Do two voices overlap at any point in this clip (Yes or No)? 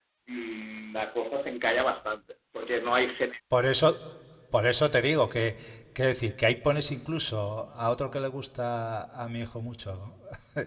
No